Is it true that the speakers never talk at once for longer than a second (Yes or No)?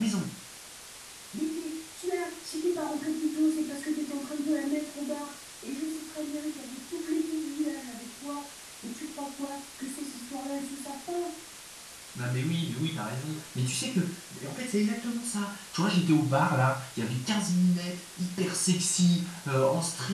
Yes